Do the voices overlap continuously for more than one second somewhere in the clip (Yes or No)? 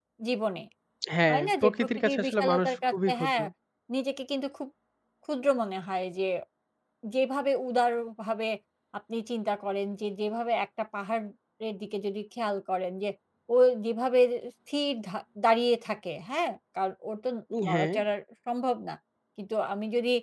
Yes